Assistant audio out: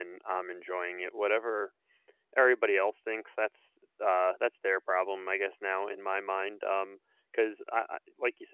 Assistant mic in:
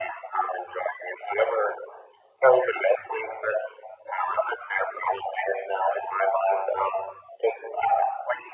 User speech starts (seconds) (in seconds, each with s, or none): none